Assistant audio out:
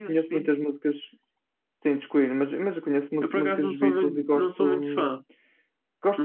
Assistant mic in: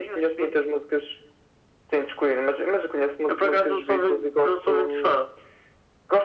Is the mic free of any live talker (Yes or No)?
Yes